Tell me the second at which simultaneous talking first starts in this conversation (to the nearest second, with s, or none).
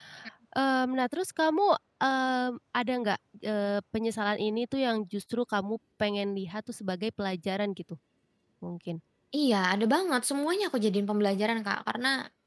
none